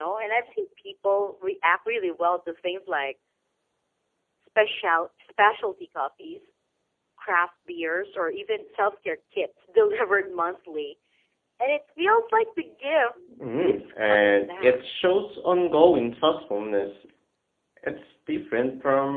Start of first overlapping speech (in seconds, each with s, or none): 13.6 s